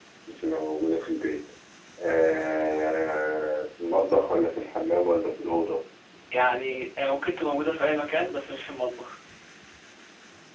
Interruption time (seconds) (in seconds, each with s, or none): none